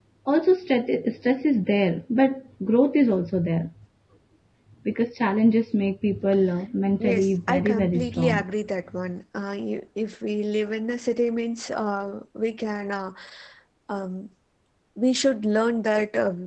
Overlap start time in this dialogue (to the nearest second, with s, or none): 7 s